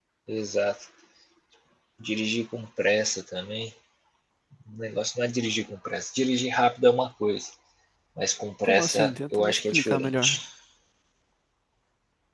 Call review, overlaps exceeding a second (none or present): present